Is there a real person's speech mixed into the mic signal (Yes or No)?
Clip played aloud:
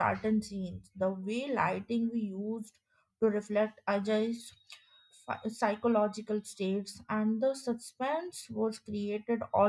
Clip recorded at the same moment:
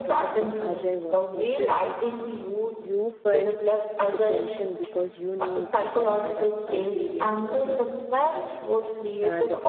Yes